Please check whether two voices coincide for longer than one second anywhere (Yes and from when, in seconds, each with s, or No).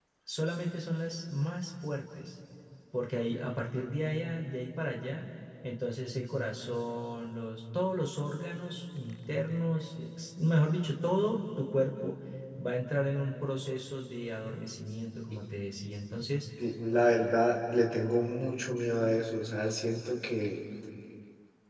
No